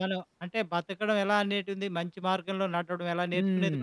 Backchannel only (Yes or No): No